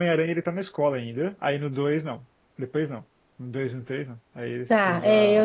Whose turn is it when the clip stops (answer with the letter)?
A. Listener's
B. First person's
A